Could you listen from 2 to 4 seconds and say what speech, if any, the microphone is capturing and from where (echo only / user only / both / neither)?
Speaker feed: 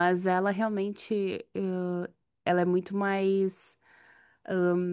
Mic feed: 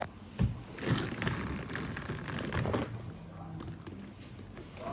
neither